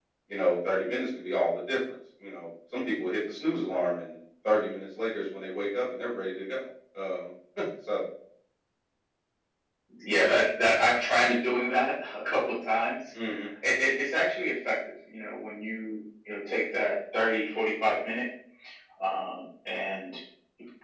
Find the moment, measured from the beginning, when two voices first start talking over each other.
none

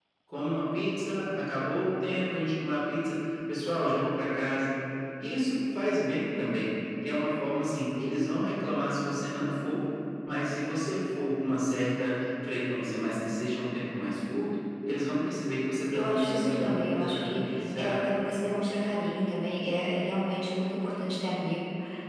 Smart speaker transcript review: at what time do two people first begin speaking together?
15.9 s

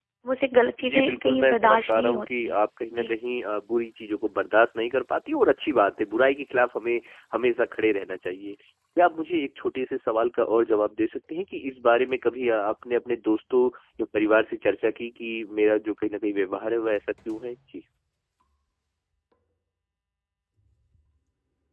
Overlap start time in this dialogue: 0.8 s

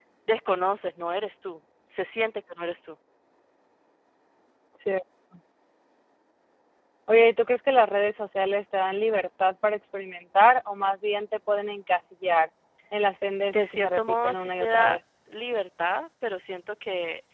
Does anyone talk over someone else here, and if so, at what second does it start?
13.5 s

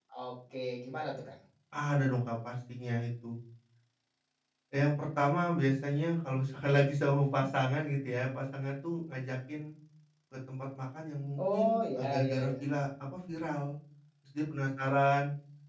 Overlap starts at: 11.4 s

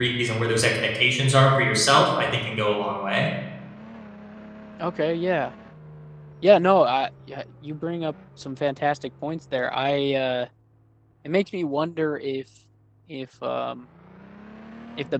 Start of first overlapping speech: none

